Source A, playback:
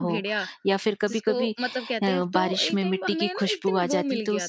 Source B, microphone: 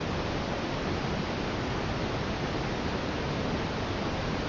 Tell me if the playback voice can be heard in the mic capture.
No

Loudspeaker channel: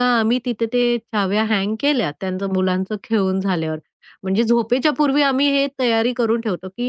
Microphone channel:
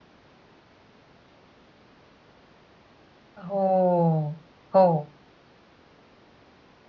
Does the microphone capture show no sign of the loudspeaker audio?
Yes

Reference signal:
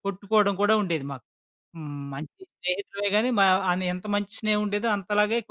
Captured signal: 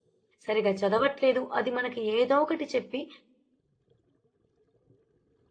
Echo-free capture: Yes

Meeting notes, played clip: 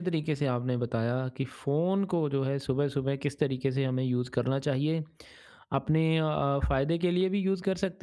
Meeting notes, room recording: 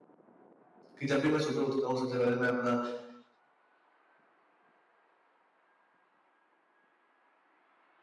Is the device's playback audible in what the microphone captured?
No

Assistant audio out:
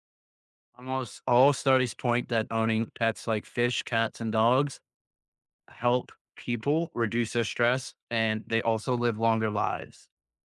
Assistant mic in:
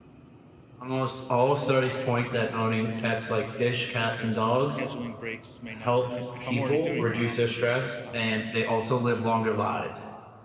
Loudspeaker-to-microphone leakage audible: Yes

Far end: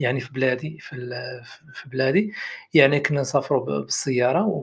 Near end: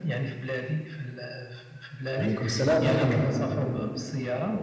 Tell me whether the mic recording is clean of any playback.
No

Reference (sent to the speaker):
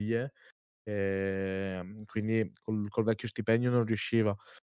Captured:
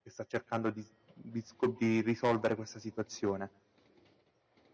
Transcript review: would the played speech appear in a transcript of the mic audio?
No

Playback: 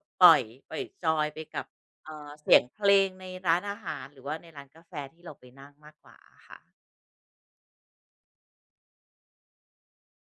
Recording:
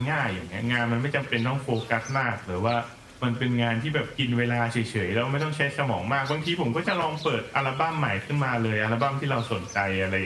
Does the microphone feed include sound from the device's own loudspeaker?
No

